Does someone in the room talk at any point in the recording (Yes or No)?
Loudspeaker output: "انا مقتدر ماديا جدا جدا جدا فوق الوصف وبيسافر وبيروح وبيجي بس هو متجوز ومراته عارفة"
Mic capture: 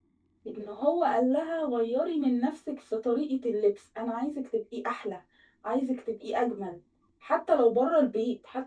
Yes